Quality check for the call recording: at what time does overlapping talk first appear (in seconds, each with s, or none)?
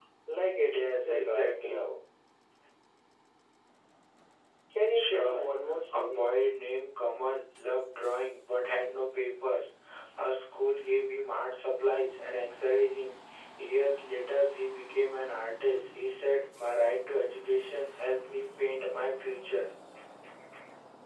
0.7 s